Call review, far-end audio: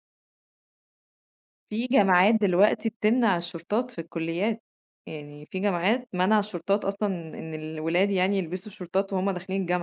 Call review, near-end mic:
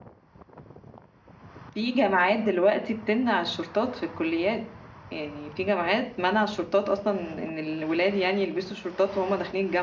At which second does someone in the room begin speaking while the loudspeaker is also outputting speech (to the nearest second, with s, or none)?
none